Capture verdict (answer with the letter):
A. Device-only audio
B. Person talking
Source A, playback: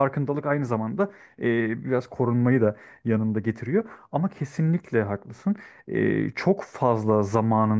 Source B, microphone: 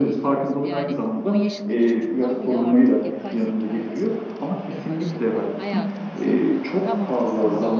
B